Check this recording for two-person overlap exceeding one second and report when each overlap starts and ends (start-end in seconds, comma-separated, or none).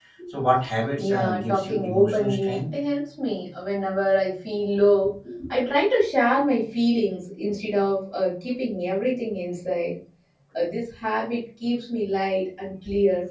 1.0-2.6